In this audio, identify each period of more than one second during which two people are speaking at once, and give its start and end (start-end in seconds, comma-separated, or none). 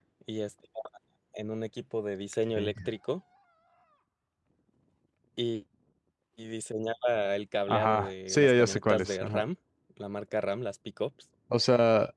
7.7-9.4